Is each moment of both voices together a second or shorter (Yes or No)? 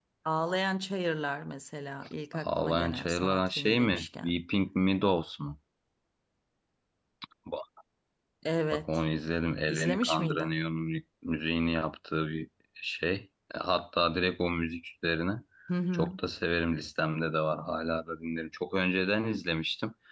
No